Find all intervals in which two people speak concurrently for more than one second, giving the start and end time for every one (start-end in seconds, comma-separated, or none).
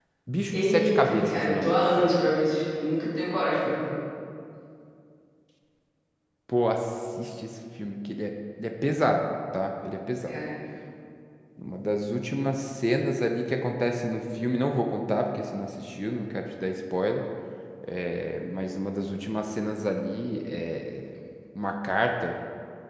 0.5-2.1